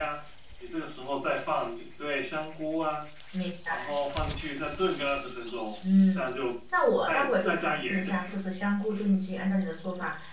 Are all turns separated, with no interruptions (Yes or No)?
No